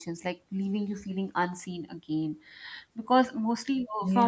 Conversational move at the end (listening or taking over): listening